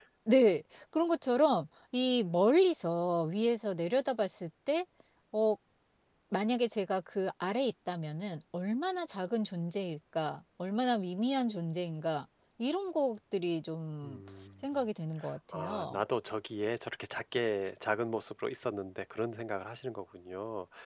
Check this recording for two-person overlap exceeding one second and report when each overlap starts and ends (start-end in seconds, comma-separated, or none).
none